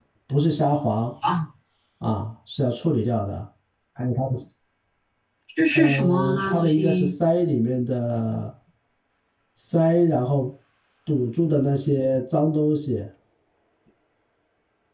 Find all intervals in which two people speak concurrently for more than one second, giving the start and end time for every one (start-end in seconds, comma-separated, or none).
5.7-7.1